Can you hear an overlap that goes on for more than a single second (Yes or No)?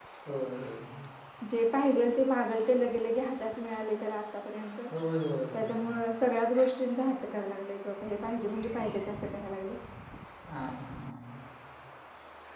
No